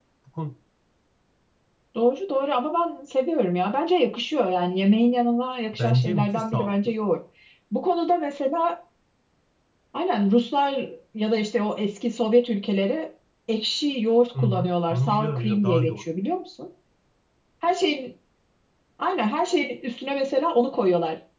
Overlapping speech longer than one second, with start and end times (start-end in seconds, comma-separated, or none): 5.7-6.9, 14.4-16.0